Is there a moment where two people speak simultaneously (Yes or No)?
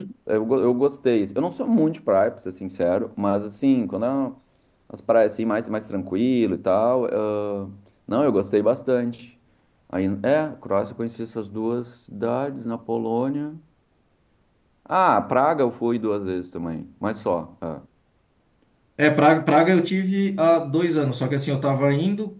No